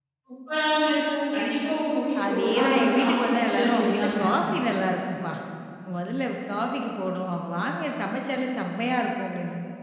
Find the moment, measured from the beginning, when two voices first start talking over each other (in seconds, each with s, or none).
2.1 s